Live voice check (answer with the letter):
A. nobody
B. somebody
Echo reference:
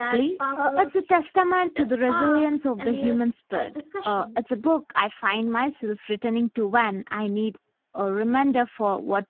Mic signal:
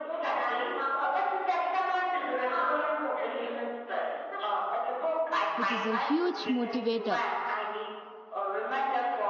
B